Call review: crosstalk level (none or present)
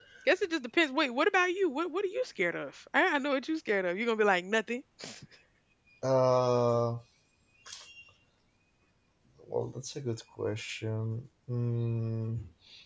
none